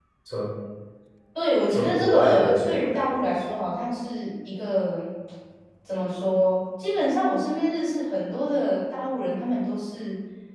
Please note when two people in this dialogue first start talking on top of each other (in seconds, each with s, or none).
1.7 s